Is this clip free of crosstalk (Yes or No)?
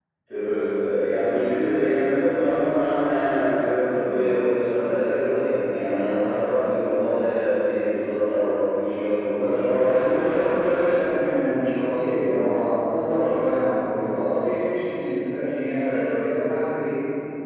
No